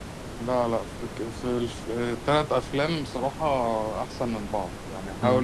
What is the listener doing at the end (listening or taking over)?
listening